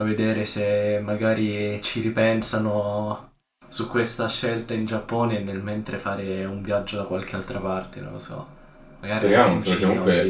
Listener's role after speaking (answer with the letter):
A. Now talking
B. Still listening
A